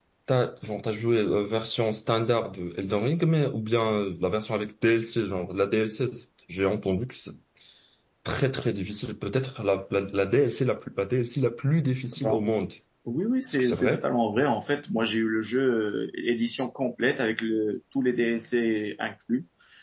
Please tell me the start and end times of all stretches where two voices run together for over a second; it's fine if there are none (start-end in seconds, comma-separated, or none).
none